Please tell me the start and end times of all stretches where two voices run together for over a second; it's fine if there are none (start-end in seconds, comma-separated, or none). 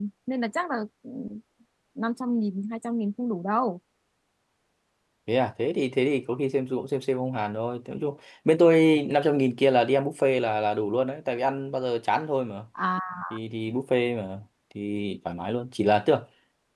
none